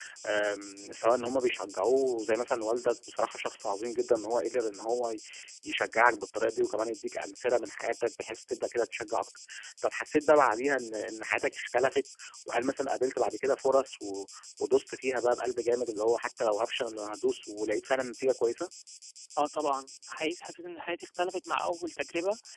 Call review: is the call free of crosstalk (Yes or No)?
Yes